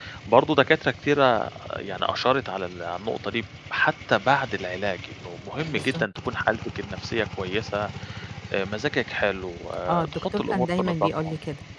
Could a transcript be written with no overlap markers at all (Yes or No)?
No